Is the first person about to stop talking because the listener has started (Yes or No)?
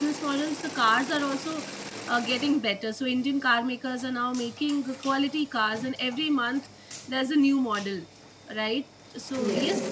No